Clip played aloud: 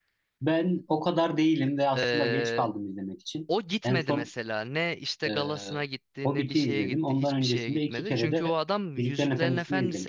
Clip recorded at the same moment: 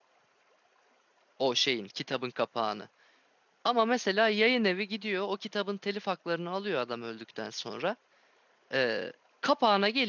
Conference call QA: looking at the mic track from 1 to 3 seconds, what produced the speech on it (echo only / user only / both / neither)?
user only